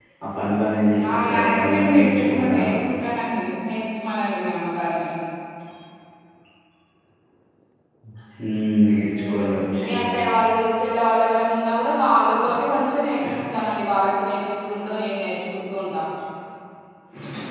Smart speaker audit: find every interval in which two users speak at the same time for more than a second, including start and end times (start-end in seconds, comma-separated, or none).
1.1-2.7